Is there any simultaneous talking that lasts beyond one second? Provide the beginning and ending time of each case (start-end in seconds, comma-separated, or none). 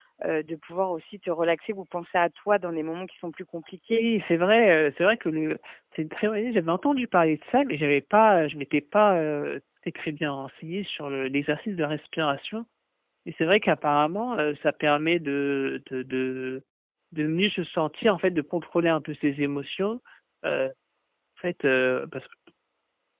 none